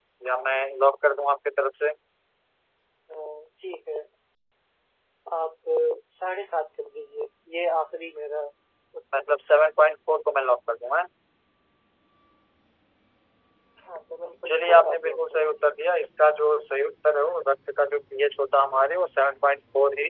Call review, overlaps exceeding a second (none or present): present